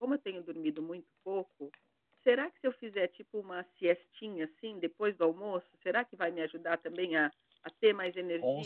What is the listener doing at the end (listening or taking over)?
taking over